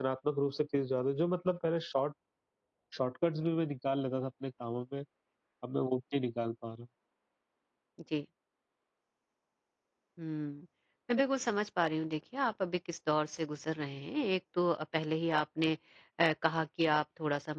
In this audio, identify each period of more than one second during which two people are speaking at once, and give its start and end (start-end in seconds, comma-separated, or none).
none